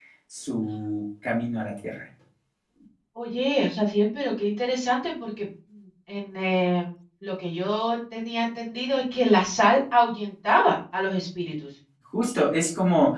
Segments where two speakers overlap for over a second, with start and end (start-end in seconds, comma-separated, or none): none